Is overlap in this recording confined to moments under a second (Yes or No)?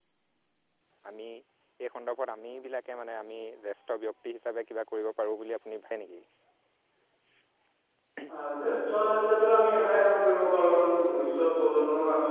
Yes